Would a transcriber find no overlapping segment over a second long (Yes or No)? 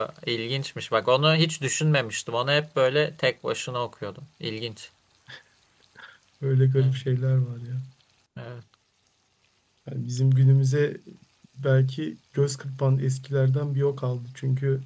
Yes